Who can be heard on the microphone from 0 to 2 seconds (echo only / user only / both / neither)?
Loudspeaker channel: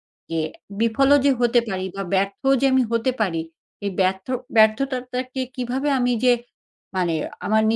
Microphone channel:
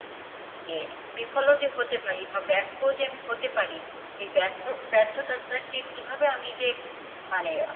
echo only